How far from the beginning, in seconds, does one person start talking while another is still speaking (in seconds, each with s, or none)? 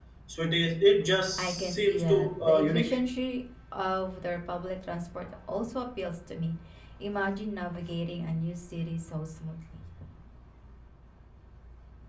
1.4 s